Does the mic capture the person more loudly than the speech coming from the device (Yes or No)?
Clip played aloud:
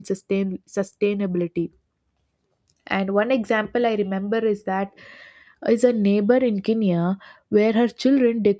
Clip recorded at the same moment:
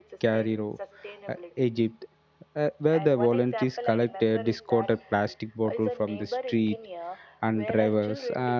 Yes